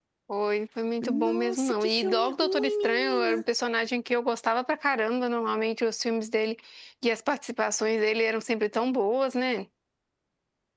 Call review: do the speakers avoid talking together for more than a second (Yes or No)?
No